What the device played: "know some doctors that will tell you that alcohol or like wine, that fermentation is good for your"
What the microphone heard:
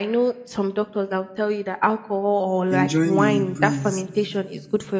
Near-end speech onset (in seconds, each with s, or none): 2.7 s